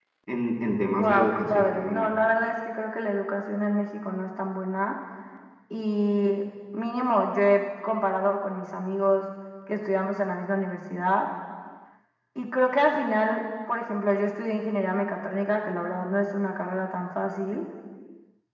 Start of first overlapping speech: 1 s

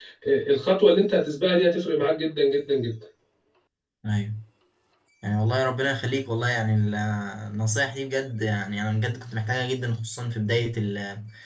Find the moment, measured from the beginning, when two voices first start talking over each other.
none

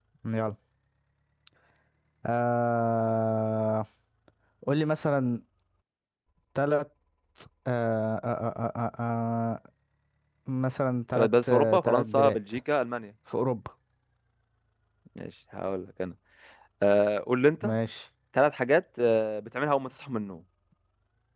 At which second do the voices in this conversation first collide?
11 s

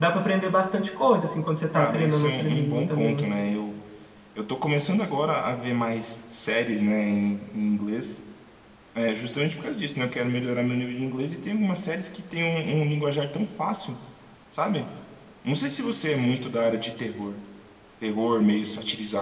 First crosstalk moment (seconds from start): 2 s

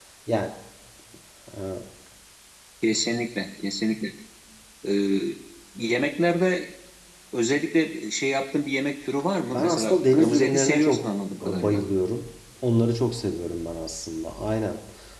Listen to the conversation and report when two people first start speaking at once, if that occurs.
10 s

